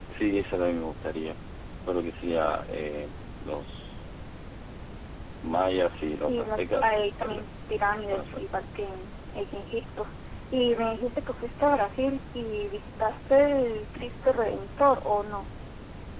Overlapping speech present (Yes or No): Yes